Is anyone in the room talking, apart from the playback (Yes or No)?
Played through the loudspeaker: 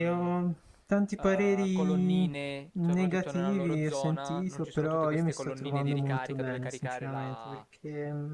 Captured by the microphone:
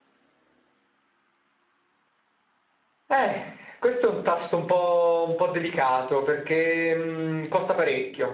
Yes